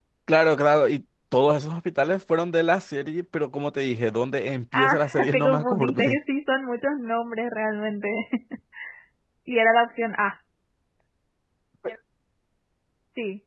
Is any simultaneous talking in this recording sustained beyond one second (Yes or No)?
Yes